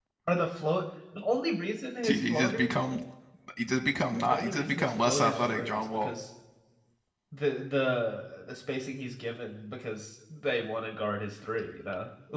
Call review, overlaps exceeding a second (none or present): present